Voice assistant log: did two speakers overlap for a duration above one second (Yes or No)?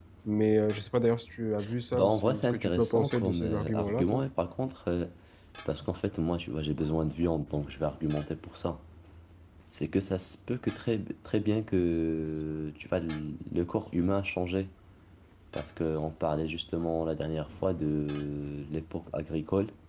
Yes